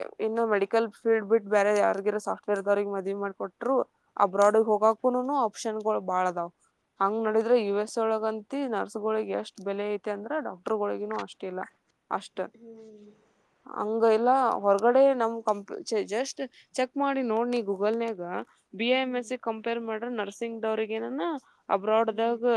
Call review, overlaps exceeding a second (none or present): none